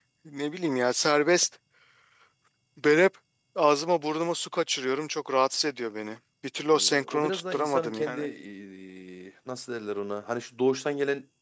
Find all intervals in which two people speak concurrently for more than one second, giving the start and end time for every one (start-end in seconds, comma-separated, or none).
6.7-8.2